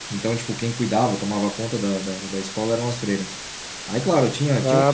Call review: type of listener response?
listening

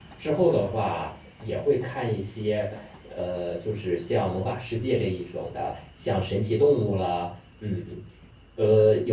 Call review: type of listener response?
listening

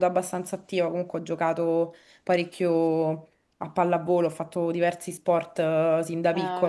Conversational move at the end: listening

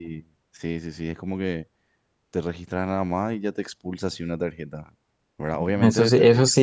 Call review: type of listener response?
taking over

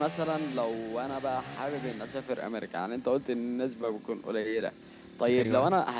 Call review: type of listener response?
listening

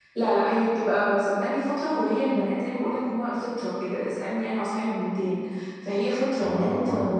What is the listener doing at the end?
listening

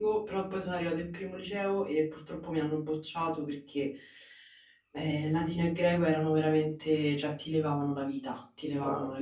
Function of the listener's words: listening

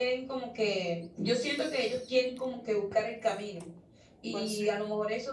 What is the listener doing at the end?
listening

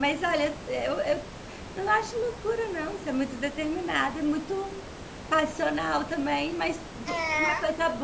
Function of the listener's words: taking over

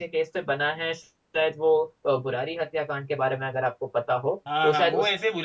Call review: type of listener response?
taking over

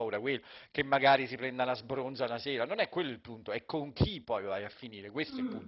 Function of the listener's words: taking over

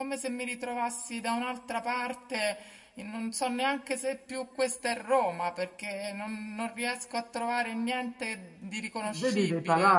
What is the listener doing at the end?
taking over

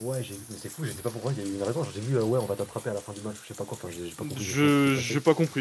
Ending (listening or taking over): taking over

